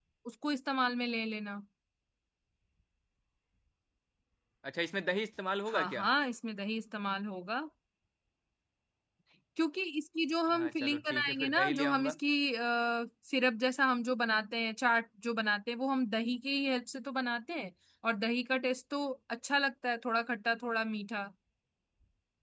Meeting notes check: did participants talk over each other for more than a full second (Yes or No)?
Yes